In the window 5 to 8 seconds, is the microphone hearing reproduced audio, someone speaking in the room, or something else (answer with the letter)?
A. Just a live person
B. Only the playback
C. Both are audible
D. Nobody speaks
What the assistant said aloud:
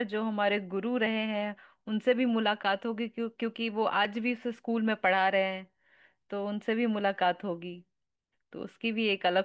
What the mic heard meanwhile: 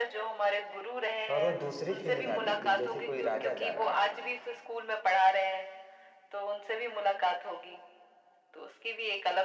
B